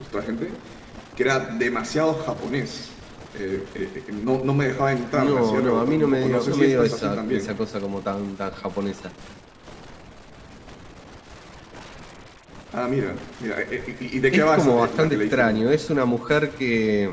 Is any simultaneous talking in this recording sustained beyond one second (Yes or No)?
Yes